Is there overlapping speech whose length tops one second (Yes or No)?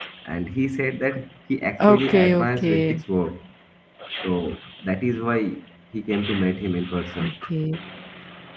Yes